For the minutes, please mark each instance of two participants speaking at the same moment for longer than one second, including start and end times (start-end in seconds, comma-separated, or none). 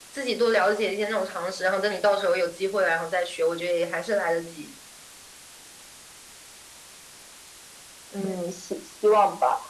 none